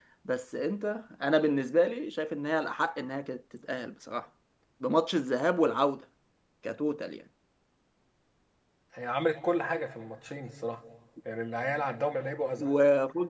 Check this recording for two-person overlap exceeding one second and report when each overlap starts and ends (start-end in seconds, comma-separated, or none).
none